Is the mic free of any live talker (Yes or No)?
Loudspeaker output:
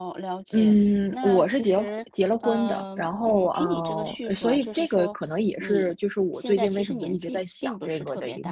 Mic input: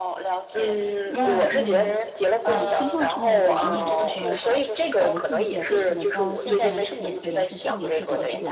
No